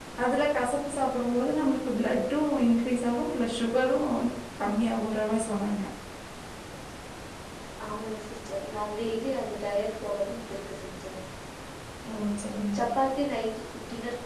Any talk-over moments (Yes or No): No